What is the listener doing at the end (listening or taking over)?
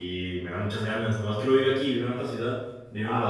listening